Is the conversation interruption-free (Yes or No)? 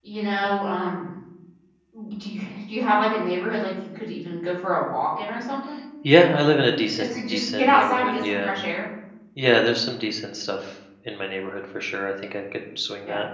No